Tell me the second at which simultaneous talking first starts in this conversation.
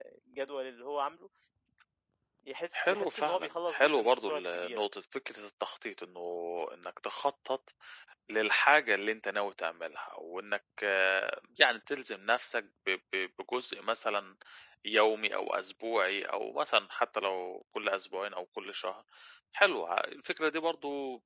3 s

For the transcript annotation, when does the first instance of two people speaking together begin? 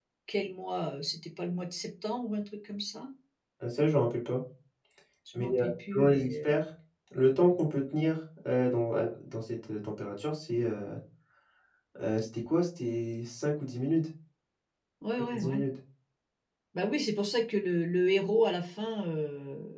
5 s

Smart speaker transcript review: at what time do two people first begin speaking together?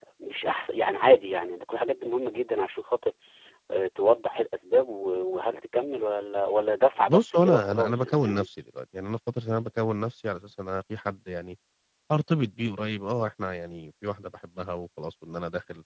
7 s

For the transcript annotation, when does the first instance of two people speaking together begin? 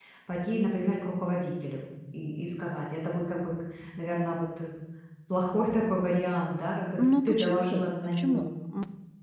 7 s

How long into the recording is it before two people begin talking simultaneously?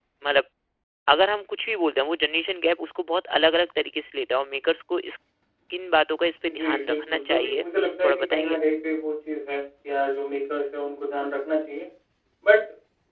6 s

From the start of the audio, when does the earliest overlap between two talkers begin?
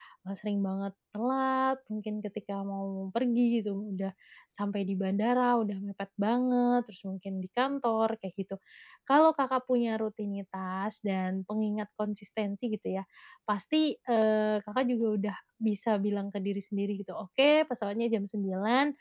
none

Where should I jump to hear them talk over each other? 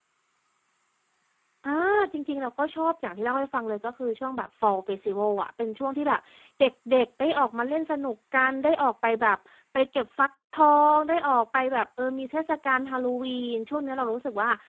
none

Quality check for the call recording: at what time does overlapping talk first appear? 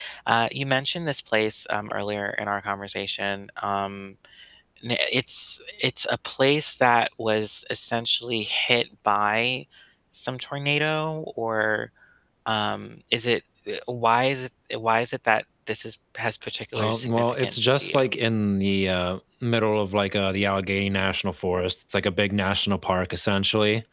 17 s

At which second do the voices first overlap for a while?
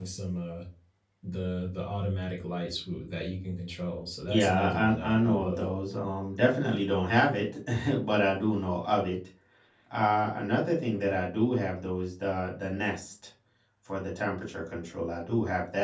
4 s

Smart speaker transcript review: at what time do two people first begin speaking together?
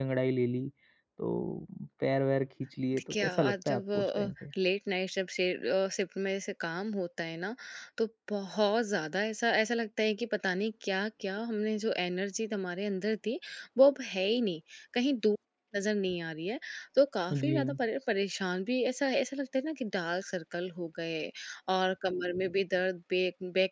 3 s

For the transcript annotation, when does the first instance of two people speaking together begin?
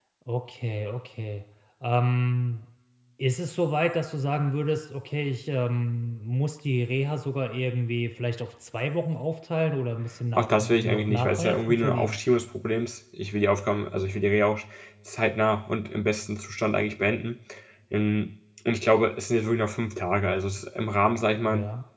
10 s

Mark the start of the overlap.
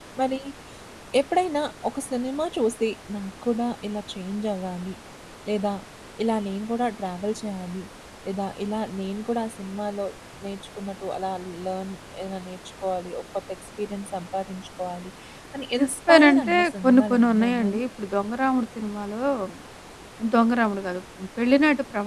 16 s

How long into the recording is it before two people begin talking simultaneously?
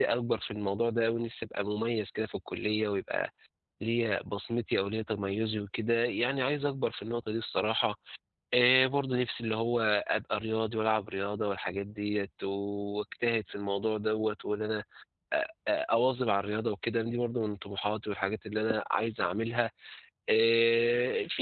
none

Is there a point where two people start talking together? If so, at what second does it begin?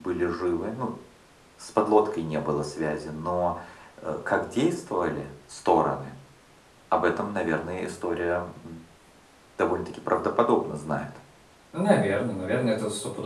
none

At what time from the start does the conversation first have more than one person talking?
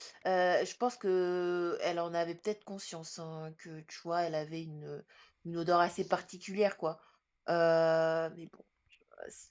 none

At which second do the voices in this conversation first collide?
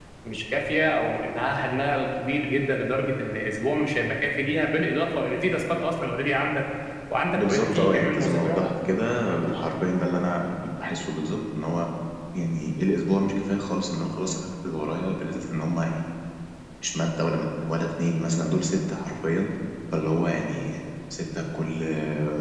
7 s

